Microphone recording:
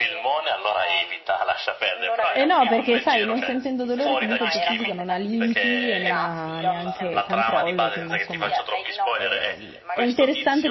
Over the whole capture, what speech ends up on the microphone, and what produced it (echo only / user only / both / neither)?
both